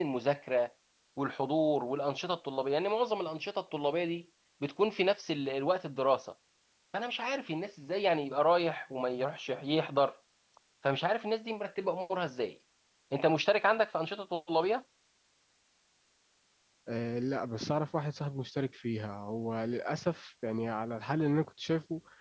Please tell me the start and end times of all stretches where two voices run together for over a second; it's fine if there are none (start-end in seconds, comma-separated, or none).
none